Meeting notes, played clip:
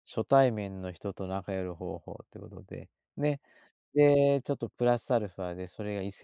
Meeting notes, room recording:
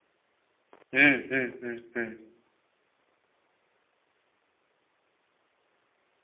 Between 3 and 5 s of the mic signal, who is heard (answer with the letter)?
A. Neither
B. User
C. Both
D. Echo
A